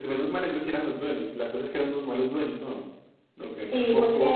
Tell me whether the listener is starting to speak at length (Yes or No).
Yes